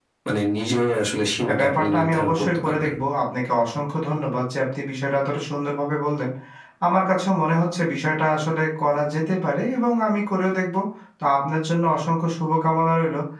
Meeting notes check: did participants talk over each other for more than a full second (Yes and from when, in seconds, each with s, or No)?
Yes, from 1.5 s